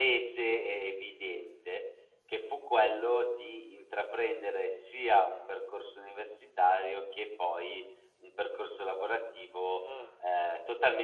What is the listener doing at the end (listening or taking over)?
listening